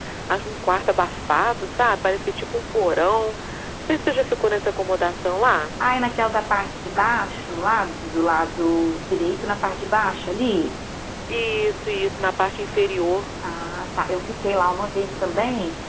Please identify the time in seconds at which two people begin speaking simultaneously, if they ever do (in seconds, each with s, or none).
none